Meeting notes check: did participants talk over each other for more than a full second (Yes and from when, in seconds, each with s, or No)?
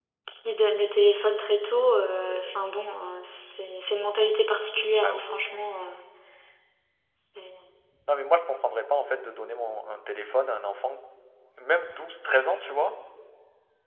No